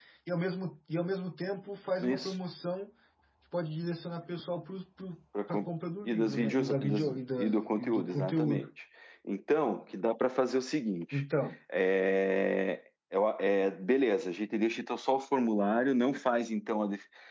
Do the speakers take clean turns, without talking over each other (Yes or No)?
No